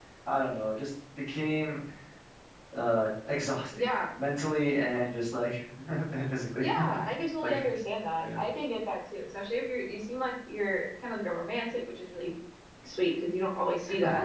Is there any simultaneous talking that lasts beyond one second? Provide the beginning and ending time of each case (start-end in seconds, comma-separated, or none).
none